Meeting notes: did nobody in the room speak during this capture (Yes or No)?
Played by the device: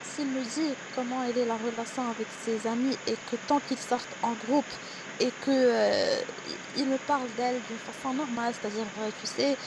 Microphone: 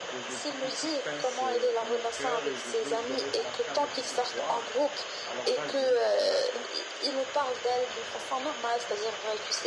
No